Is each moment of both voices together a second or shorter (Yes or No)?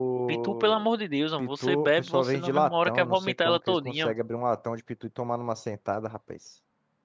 No